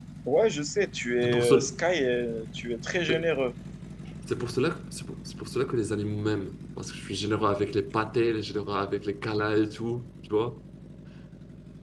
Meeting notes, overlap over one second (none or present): none